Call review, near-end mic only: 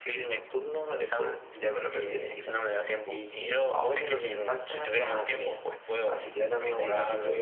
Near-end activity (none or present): present